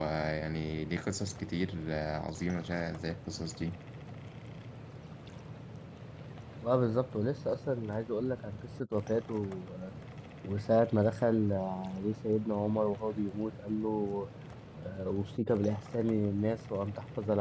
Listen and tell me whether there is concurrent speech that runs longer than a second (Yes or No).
No